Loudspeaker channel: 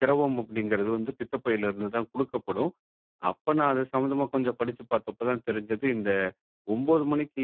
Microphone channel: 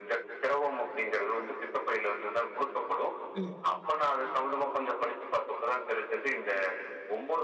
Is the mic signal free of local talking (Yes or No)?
No